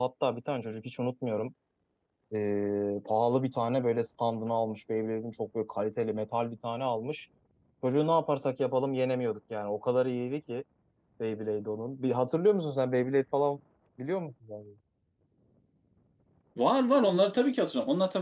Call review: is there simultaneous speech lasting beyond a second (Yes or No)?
No